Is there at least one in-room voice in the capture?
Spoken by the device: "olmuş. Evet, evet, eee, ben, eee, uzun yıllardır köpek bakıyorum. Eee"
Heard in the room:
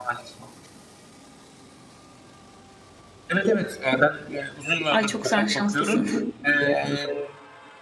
Yes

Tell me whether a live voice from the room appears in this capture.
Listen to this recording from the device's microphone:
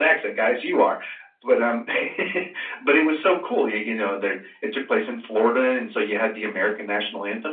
No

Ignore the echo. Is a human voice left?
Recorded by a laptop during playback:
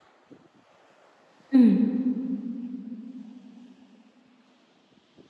Yes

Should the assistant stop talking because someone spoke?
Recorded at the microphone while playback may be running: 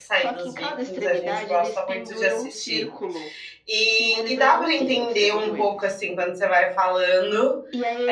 Yes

